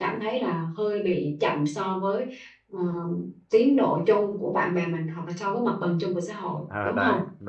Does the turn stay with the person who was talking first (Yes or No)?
No